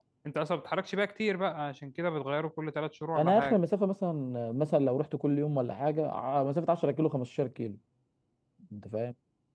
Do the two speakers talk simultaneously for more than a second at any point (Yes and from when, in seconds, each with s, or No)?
No